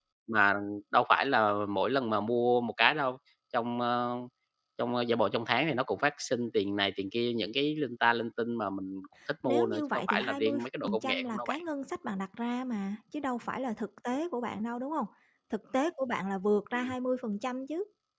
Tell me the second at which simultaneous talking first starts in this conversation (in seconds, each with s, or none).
9.4 s